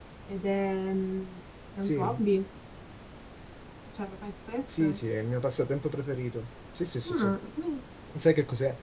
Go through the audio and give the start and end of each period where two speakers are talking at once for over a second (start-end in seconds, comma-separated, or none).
none